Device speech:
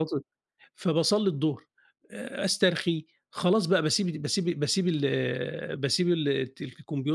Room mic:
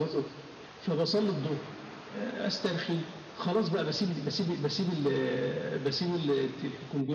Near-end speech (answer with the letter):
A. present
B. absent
B